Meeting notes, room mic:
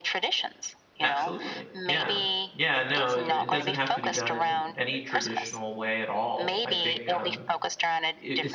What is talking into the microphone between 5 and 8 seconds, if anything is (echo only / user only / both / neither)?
both